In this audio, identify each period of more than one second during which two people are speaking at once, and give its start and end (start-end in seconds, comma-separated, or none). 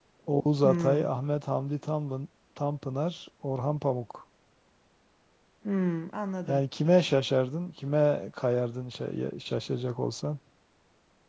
none